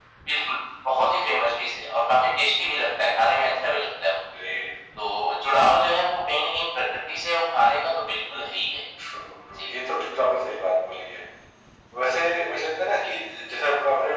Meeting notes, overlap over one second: none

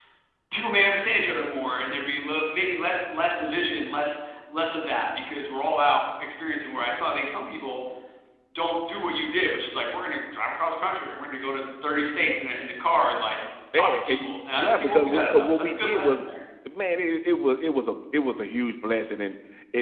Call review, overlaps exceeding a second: present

